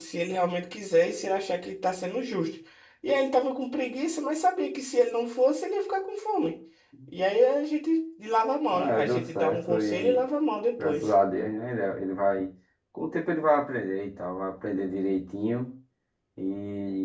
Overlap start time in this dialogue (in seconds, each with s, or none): 8.7 s